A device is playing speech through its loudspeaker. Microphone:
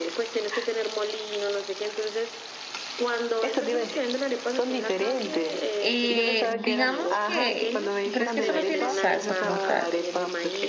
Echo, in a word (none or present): present